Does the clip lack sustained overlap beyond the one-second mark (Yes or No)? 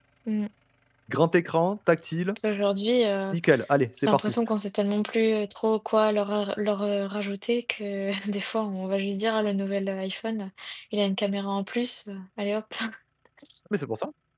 Yes